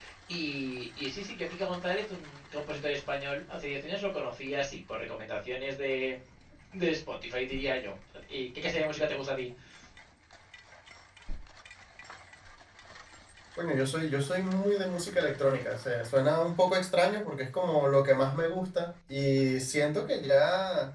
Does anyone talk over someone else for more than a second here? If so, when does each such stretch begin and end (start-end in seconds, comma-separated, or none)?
none